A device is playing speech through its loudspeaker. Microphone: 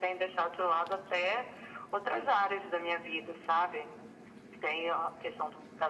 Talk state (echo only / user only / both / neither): echo only